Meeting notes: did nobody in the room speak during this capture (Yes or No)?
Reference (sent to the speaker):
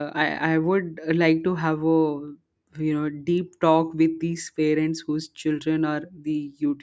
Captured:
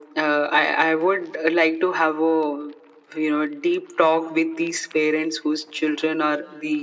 Yes